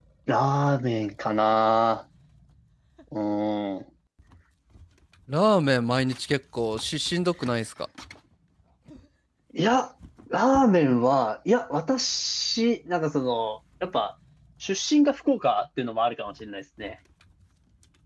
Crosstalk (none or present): none